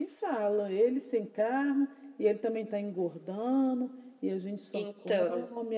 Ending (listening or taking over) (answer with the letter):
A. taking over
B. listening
B